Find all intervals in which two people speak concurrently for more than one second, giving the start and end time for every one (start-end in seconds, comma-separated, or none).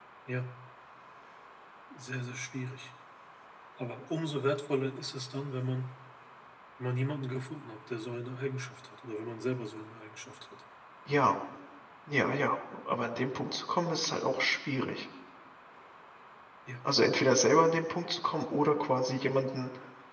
none